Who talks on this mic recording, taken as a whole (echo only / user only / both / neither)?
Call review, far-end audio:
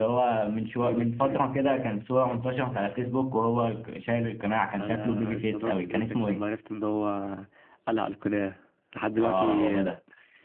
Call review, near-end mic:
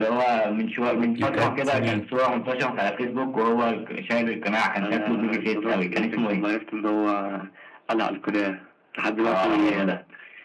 both